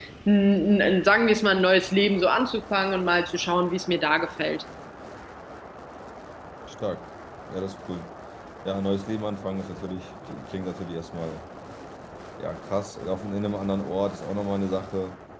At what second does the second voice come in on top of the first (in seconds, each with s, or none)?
none